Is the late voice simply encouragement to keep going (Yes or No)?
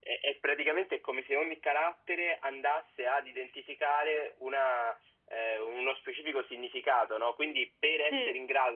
Yes